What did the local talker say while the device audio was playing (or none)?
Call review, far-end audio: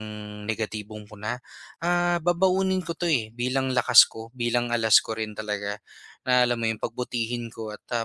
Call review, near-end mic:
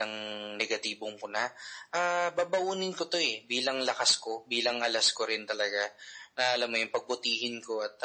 none